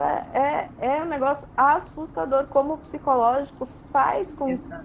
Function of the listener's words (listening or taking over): listening